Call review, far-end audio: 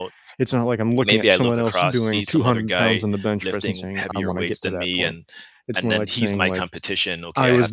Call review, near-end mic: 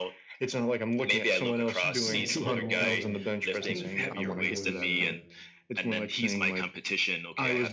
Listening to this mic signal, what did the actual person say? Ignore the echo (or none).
Yeah, and it can go a long way. I wish my partner was, uh,